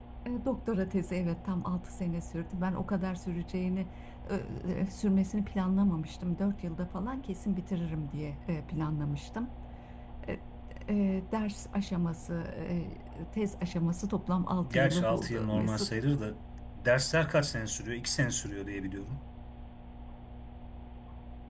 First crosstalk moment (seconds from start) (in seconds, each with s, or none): 14.6 s